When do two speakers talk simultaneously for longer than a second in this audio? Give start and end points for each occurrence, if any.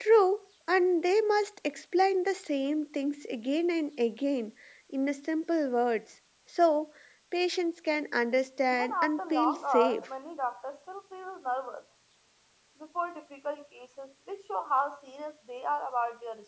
8.7-10.1

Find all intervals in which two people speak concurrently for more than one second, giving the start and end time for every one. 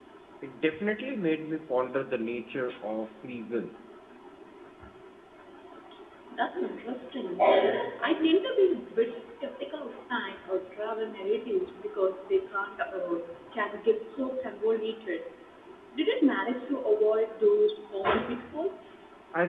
none

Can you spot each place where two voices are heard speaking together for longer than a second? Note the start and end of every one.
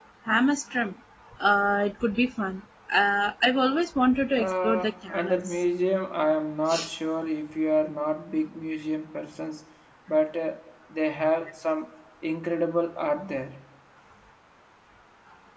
4.4-5.6

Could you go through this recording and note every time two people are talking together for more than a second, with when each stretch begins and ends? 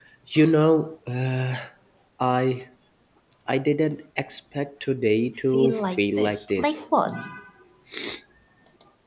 5.5-6.8

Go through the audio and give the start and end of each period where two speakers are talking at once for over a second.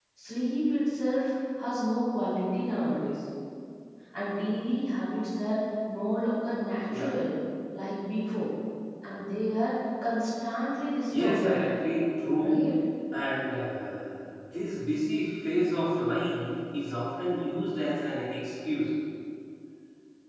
none

